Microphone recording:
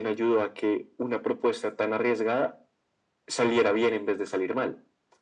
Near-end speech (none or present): none